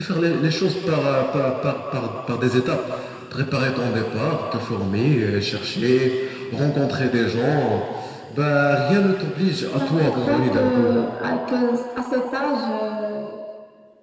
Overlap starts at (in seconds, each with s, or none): 9.7 s